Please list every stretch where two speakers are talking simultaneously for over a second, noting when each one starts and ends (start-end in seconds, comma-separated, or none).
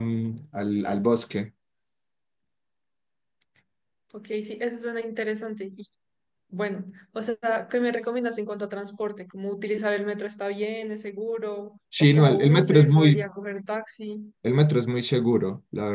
12.0-13.2